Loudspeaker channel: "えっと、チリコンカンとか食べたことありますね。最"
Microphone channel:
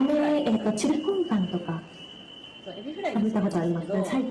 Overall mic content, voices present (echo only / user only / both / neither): both